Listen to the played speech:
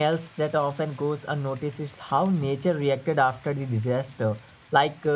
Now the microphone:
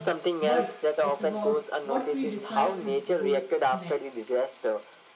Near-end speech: present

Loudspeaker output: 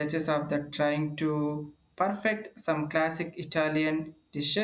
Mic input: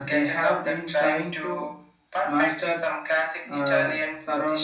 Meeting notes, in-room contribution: present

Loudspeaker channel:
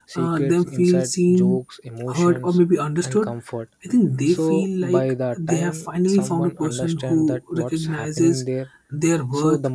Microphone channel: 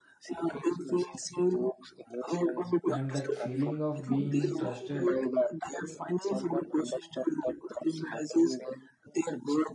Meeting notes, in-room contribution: present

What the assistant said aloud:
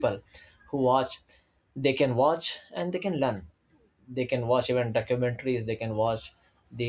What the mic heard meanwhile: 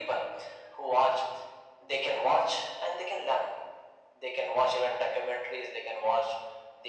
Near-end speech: none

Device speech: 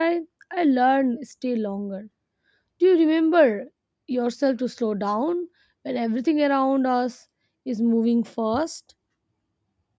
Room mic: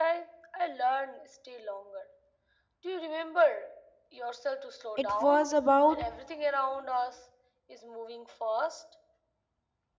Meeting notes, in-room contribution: present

